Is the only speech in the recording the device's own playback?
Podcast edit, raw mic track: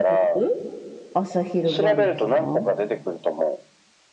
No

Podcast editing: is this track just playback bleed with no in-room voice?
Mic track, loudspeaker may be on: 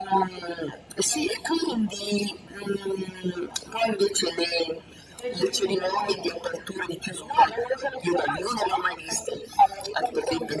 No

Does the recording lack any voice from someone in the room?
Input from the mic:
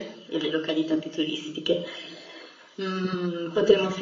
Yes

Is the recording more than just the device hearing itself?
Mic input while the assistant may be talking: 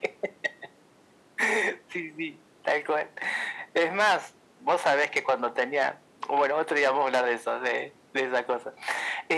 No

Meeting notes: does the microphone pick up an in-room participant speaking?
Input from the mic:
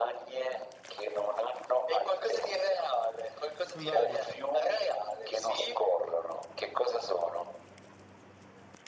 Yes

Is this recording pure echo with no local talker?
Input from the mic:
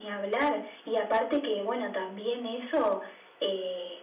Yes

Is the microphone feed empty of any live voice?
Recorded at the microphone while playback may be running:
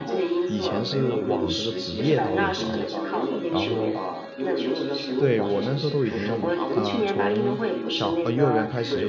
No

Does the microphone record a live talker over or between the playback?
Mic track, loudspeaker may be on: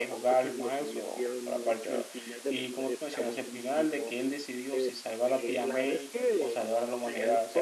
Yes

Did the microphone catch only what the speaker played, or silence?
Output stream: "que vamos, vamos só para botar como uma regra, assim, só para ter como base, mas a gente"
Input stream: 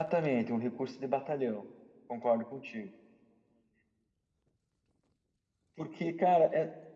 No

